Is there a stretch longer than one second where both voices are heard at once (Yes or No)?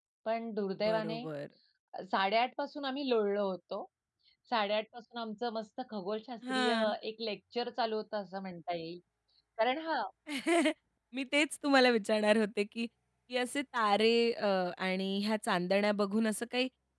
No